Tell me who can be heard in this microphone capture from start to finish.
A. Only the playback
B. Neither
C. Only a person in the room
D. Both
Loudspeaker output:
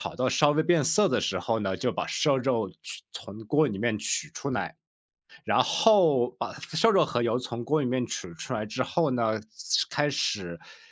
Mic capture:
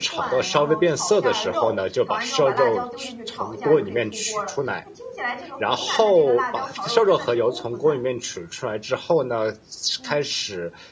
D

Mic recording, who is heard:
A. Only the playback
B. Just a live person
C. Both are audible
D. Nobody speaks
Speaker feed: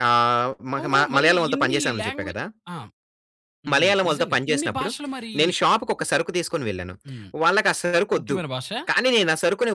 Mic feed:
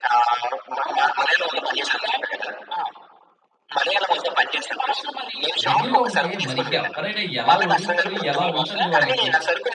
C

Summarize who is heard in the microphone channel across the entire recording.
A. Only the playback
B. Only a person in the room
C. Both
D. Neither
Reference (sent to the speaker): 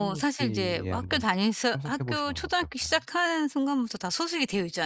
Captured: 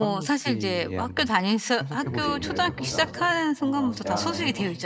C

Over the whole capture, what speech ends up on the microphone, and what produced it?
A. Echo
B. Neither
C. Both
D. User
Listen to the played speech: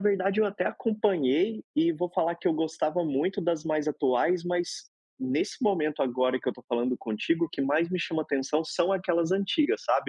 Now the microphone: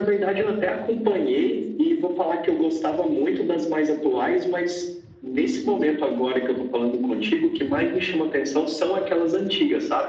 A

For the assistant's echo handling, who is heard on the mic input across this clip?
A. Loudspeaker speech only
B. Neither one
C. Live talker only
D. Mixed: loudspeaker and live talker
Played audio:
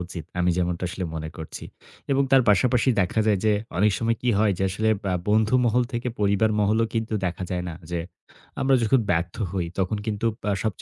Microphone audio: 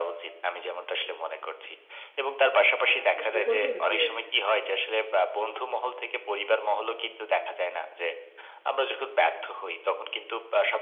D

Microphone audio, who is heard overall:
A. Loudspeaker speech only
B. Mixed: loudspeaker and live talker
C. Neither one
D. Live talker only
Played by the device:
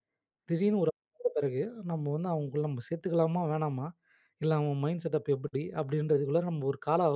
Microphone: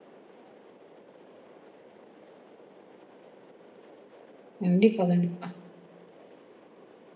D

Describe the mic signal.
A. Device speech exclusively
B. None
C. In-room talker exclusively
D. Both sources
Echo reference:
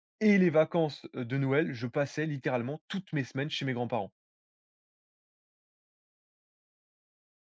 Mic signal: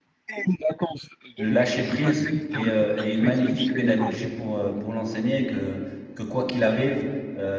D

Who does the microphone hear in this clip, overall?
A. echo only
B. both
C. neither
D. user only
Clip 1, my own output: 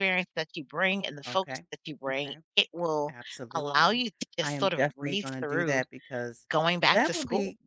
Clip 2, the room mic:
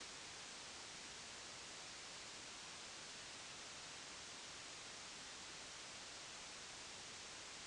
C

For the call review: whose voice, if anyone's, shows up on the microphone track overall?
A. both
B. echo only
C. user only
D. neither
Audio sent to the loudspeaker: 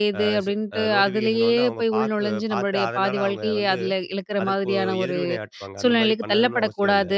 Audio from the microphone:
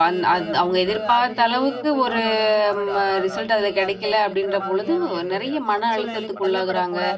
A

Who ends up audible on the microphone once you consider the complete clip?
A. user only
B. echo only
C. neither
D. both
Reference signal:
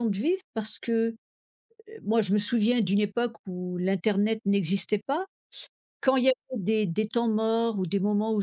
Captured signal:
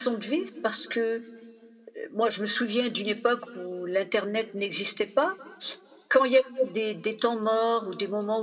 B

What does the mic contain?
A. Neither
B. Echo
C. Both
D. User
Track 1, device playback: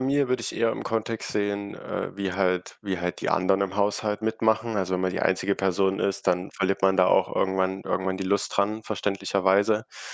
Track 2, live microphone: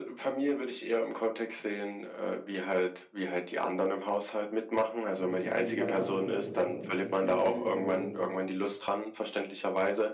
C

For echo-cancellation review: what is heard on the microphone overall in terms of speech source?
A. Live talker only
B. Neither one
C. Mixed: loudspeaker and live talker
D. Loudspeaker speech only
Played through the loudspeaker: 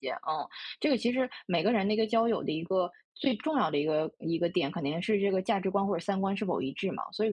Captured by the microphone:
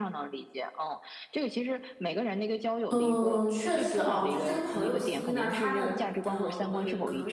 C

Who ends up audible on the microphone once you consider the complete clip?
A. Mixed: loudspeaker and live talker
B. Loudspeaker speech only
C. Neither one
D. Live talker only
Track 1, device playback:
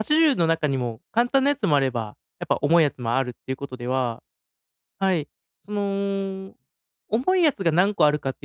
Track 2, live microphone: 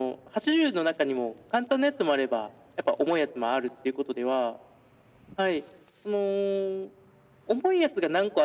B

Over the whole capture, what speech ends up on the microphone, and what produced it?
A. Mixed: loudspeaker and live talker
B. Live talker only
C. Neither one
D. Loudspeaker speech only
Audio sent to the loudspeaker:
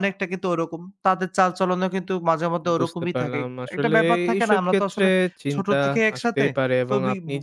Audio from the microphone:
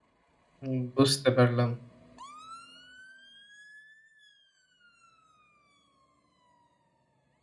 B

